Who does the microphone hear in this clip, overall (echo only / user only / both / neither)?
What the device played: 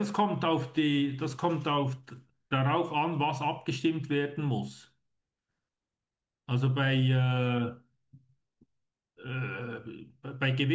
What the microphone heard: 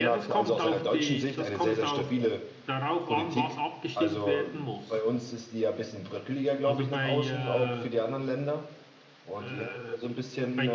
both